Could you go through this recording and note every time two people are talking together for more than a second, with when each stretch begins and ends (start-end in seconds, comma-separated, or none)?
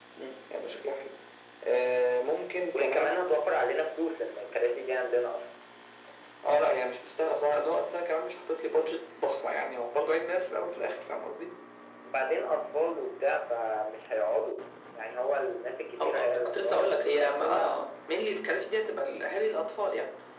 16.0-17.9